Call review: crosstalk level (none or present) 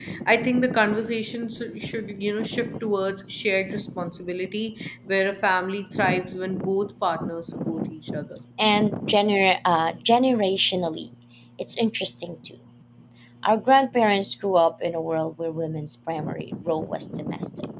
none